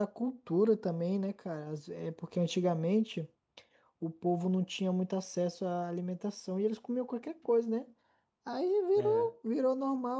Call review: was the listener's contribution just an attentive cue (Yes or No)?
Yes